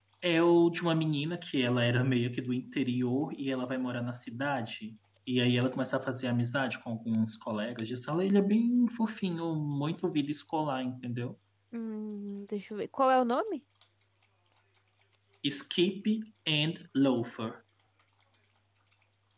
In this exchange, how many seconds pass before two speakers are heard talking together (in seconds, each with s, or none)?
none